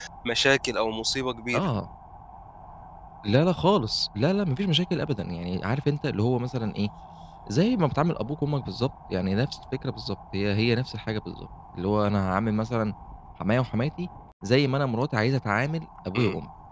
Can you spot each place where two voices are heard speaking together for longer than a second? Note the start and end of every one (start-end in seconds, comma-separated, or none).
none